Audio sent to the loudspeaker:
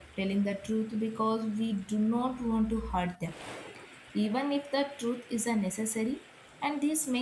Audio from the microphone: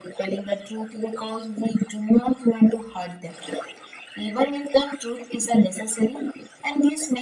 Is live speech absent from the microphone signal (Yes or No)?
Yes